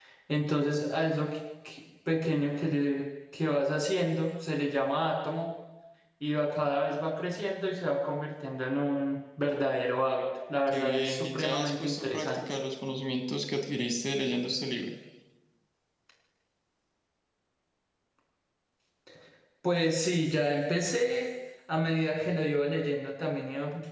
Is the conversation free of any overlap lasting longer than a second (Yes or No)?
No